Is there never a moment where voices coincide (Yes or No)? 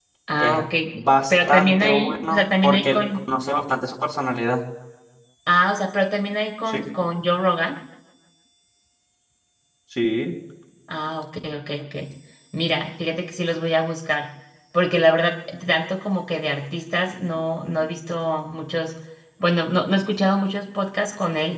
No